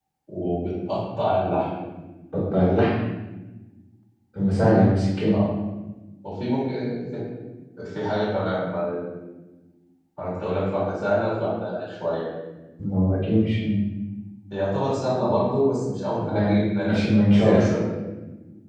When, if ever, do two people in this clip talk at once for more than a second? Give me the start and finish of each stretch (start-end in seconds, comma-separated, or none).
16.3-17.7